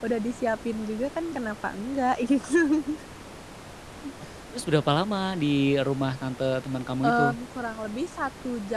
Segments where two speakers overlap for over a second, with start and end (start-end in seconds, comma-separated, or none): none